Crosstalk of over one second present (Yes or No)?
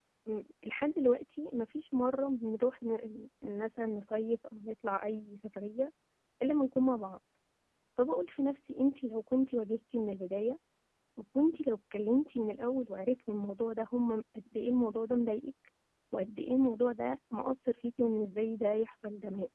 No